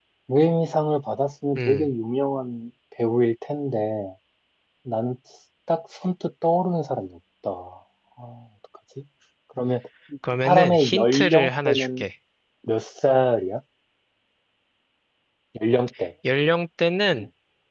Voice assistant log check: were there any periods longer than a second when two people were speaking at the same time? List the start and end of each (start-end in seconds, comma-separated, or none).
10.4-12.0